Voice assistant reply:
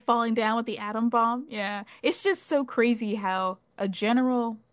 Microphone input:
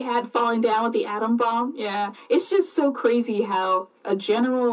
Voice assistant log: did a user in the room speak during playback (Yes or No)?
No